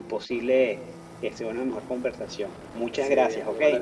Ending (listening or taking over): taking over